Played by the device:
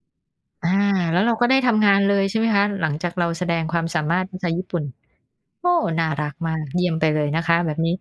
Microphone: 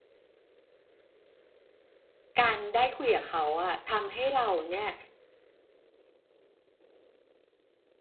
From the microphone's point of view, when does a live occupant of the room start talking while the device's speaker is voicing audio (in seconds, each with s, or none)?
2.4 s